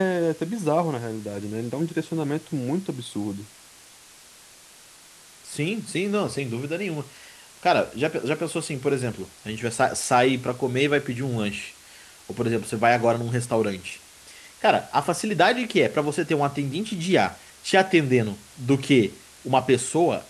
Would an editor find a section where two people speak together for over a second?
No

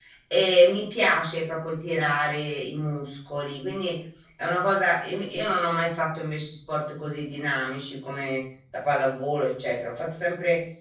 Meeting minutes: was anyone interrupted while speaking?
No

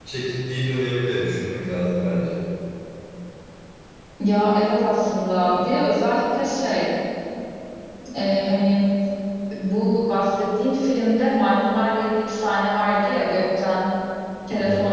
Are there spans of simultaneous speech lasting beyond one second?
No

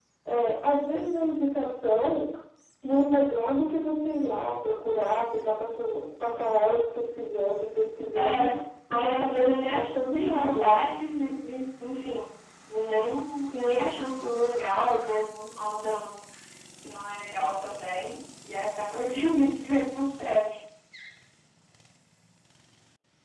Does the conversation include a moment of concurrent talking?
Yes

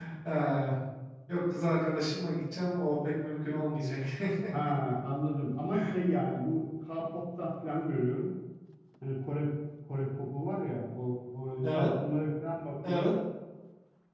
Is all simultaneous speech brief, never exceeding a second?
Yes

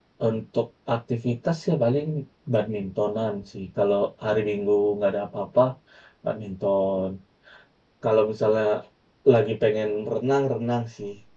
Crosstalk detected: No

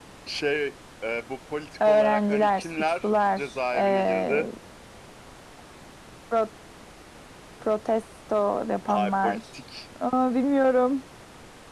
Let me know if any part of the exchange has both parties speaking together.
Yes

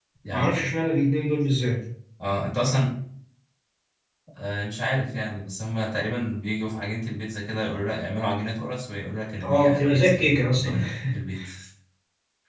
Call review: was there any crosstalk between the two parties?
Yes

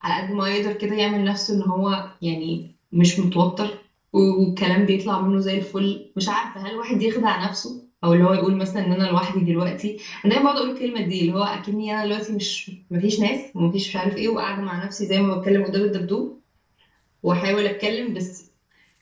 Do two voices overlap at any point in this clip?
No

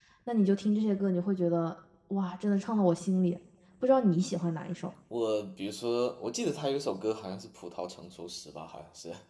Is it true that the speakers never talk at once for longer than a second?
Yes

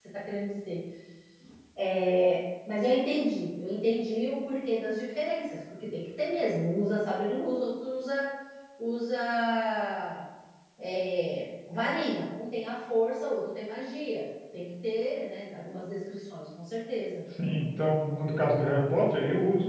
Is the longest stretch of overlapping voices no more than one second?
Yes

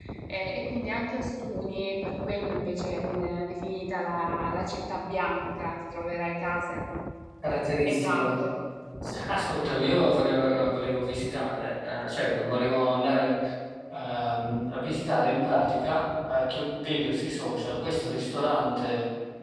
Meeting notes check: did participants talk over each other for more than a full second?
No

